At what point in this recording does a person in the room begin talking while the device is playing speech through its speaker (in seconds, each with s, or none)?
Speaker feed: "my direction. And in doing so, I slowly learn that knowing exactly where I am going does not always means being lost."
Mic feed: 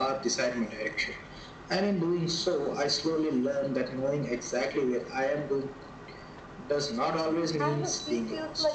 7.6 s